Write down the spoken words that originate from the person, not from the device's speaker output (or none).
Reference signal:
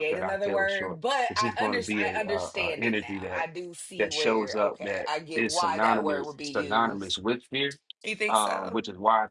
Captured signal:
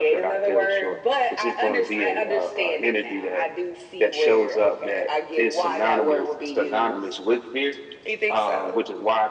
none